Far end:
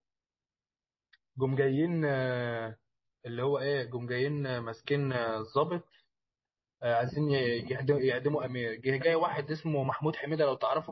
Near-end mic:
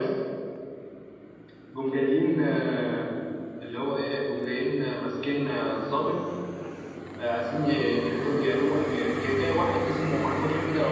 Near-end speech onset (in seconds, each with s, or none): none